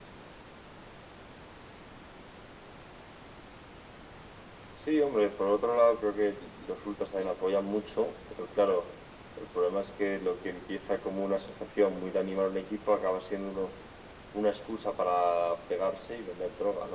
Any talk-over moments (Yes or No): No